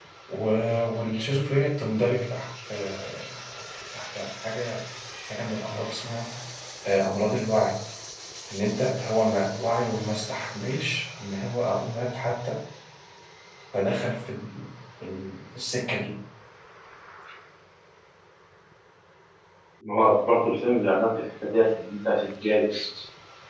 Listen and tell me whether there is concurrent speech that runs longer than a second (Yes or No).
No